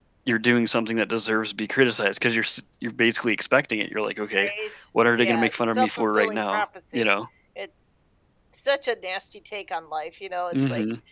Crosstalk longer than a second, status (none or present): present